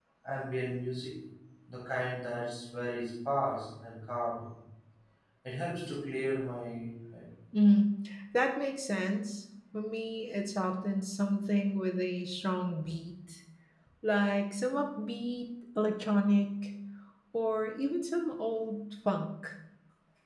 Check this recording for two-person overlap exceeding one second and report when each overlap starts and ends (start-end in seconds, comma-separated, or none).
none